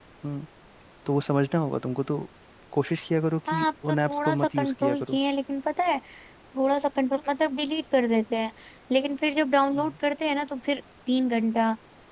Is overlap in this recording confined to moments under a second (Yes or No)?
No